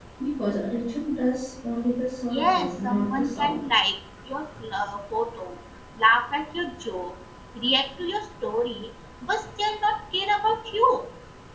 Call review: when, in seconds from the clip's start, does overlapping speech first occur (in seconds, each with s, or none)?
2.3 s